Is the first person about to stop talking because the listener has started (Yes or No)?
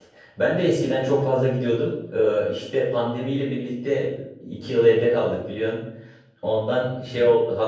No